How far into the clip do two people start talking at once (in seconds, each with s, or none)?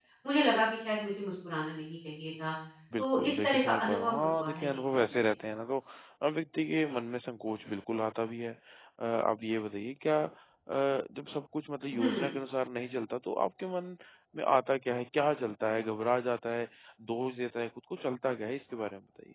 3.0 s